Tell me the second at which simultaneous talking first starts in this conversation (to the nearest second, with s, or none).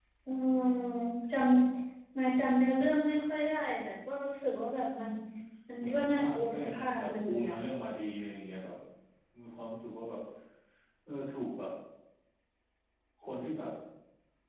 6 s